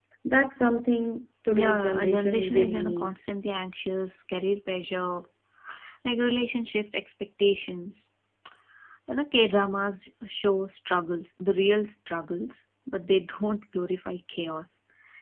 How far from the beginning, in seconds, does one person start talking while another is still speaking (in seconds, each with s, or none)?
1.5 s